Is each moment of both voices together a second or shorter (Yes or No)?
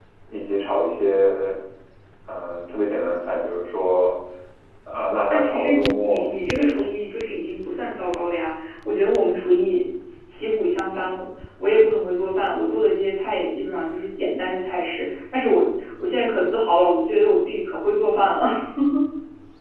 No